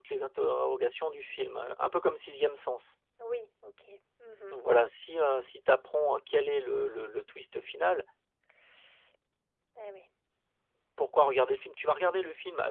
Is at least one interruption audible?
No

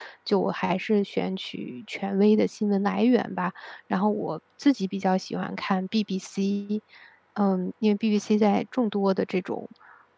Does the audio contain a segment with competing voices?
No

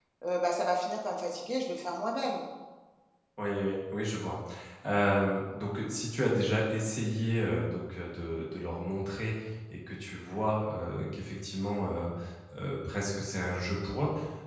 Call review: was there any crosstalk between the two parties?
No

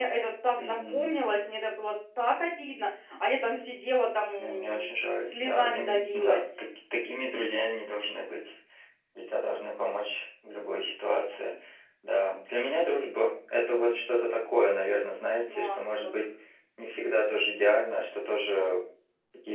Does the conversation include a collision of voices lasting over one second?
Yes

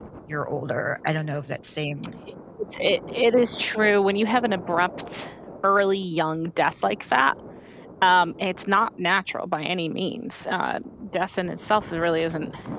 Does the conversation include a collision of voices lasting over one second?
No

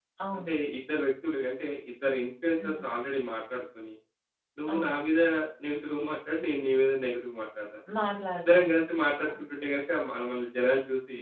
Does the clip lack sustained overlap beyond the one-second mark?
Yes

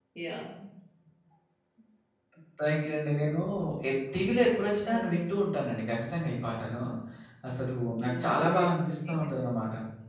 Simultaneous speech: Yes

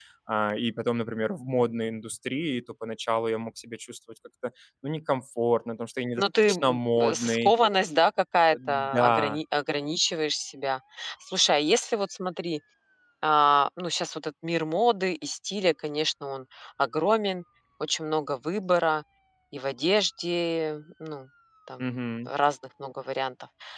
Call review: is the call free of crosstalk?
No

